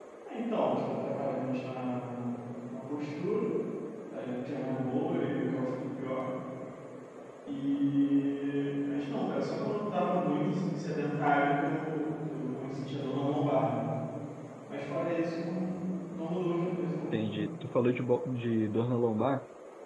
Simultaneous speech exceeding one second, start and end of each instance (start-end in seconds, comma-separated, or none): none